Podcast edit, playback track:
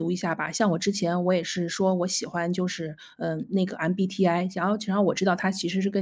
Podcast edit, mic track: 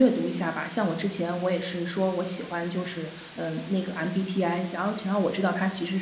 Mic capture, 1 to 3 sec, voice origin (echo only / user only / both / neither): echo only